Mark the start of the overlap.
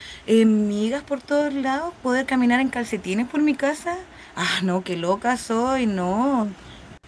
none

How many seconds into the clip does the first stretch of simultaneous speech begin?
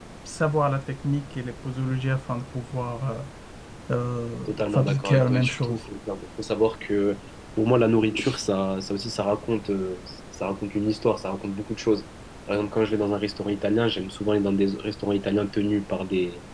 4.5 s

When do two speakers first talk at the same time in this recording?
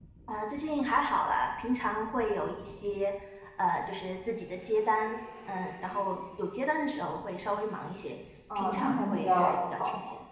8.5 s

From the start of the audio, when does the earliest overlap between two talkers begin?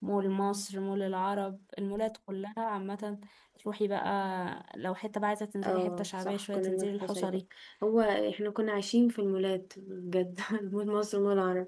5.6 s

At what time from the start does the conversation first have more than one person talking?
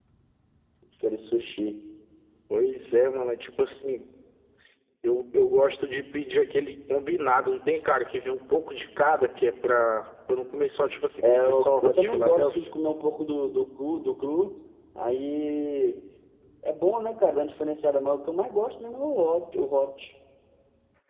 11.2 s

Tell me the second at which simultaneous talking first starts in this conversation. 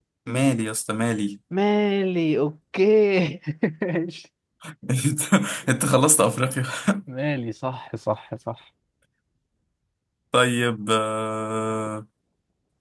none

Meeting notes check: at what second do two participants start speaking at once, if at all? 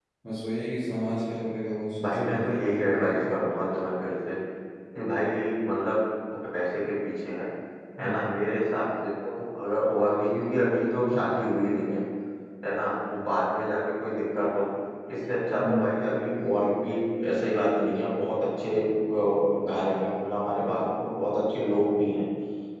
2.0 s

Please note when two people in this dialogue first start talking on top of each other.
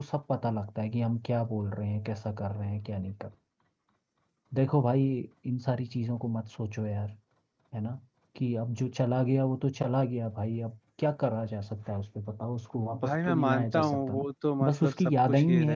12.9 s

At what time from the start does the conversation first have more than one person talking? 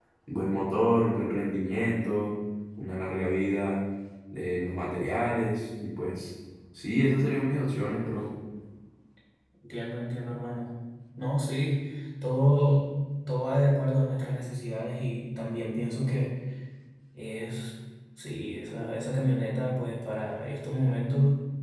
none

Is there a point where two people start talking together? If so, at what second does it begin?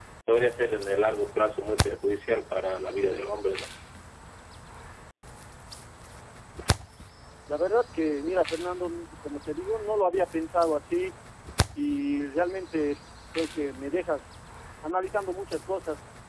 none

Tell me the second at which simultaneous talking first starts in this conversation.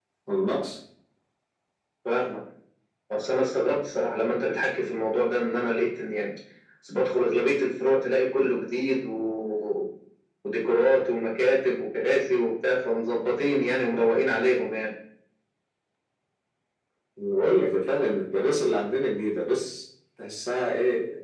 none

